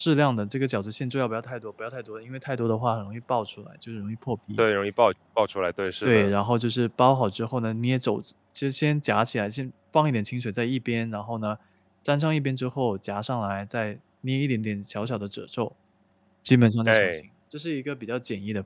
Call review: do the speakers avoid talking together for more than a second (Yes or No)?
Yes